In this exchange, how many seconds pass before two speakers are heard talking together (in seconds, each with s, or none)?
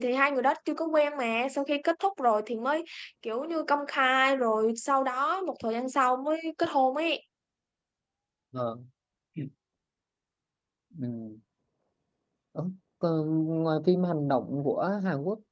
none